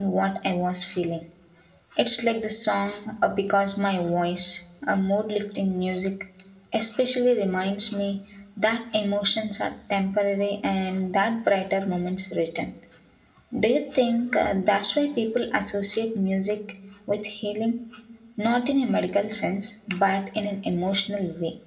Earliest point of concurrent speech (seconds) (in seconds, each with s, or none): none